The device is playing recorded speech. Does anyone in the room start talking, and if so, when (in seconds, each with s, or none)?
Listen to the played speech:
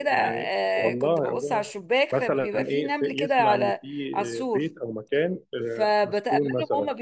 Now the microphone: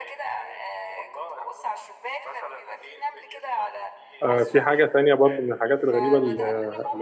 4.2 s